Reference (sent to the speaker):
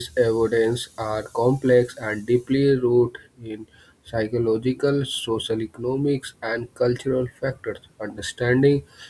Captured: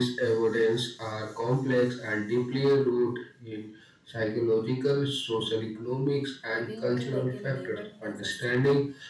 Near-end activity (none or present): present